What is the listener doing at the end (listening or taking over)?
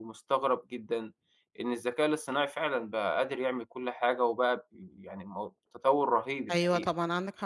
taking over